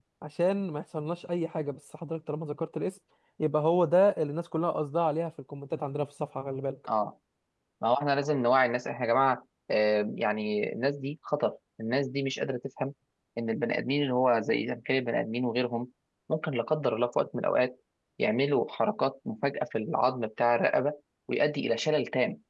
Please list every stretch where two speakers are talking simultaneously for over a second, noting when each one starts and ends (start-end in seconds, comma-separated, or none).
none